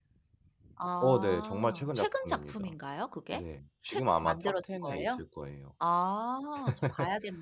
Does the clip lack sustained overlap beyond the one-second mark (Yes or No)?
No